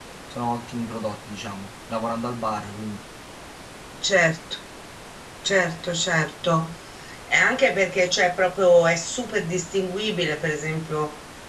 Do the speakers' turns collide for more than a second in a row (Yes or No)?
No